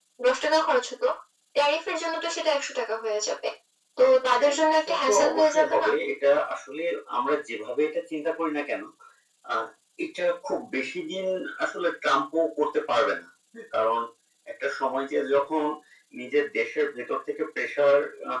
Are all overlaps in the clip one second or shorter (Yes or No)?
No